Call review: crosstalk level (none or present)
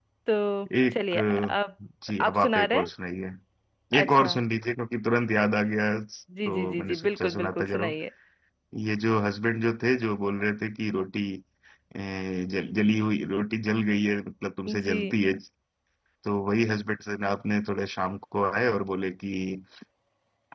present